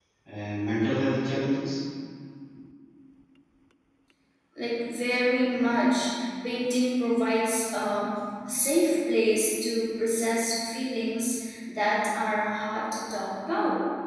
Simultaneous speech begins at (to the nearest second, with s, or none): none